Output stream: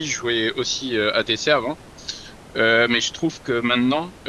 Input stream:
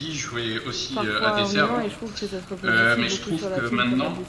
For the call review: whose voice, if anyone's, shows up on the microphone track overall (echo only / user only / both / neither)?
both